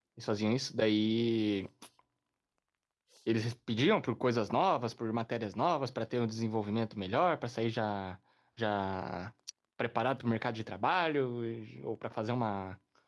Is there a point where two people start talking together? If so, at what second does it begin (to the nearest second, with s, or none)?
none